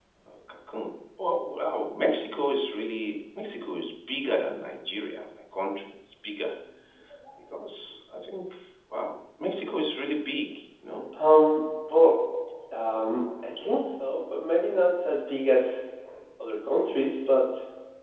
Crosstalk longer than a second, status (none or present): none